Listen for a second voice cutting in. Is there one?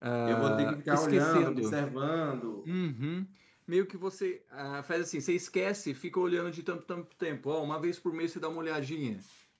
Yes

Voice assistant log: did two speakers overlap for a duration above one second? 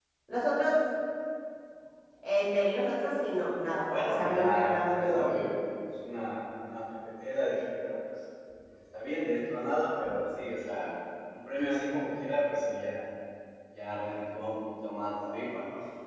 Yes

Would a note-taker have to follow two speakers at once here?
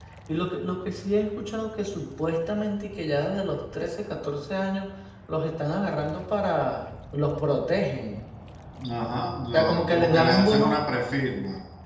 Yes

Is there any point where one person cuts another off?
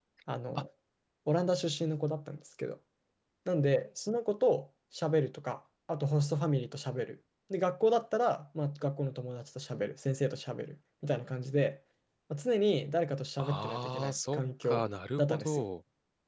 Yes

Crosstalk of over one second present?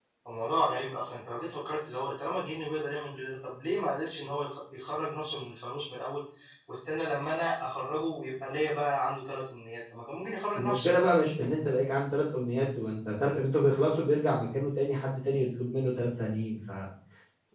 No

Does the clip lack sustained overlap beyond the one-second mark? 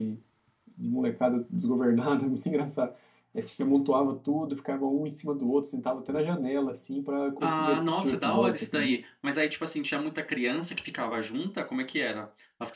No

